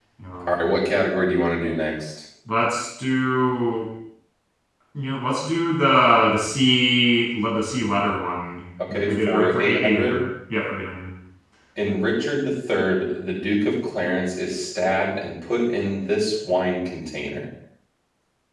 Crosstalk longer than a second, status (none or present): present